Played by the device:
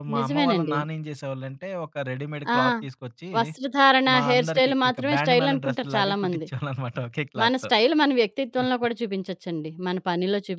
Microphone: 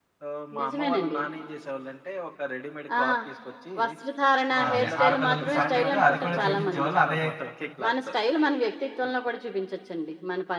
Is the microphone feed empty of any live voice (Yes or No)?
No